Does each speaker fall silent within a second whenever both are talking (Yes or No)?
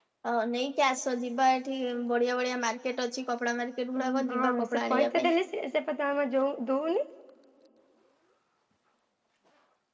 No